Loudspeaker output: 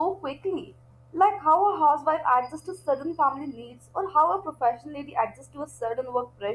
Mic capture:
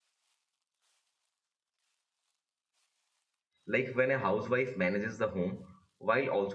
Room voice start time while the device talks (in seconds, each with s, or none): 3.7 s